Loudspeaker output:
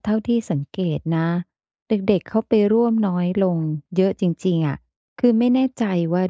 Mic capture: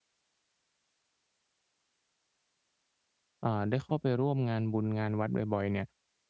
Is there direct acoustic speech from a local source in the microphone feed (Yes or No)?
Yes